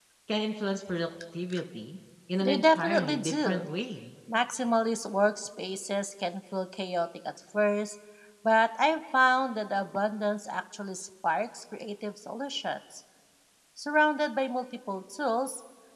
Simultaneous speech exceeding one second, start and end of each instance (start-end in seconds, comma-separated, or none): 2.4-3.6